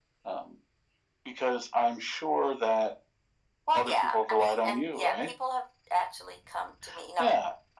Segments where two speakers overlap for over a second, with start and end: 3.7-5.3

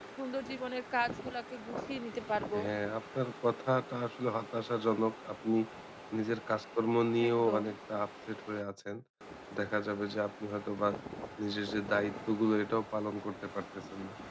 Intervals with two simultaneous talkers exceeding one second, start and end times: none

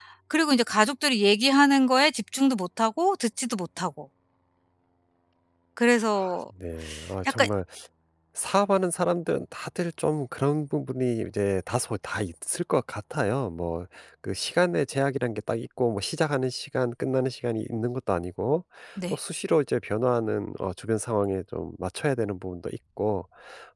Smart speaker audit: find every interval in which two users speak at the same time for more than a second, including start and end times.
none

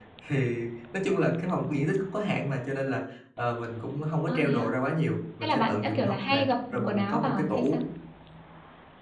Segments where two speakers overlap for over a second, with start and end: 5.4-7.8

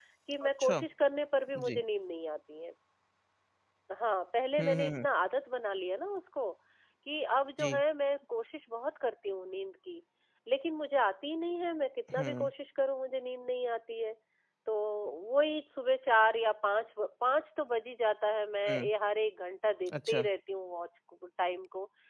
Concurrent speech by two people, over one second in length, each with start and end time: none

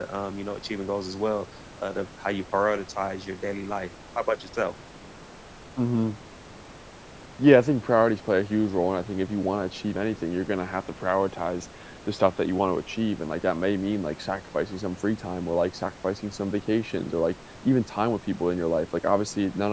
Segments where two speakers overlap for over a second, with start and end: none

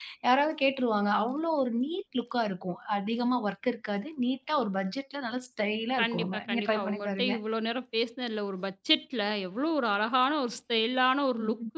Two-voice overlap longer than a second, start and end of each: 6.0-7.3

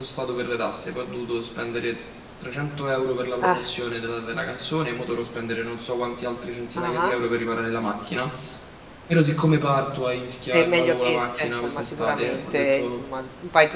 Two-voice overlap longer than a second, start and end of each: 10.5-13.0

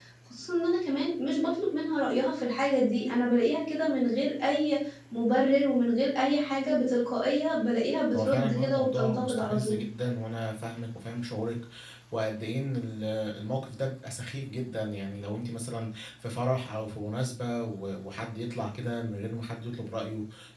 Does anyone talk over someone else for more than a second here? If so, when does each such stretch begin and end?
8.1-9.8

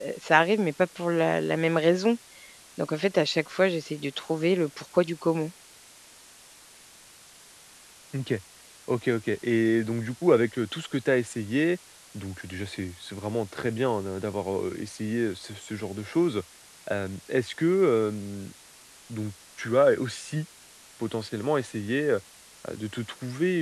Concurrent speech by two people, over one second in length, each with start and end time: none

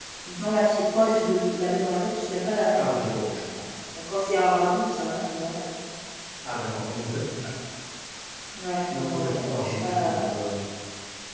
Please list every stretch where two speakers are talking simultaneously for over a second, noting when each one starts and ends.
8.9-10.2

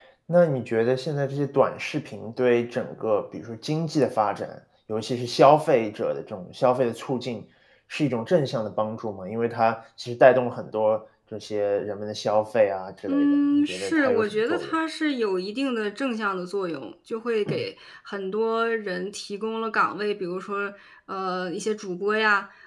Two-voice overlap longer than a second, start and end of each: 13.1-14.7

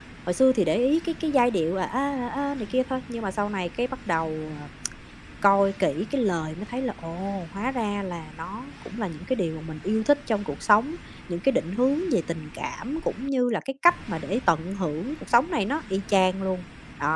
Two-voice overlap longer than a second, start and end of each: none

